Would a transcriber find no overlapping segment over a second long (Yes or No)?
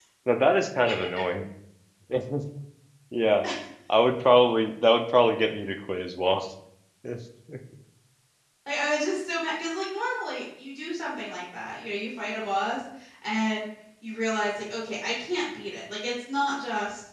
Yes